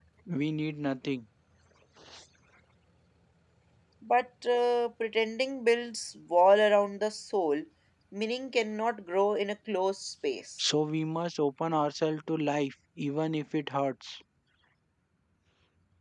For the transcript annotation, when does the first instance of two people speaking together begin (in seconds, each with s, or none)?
none